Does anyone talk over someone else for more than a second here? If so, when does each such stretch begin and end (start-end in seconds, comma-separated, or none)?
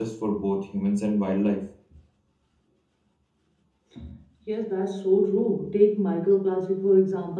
none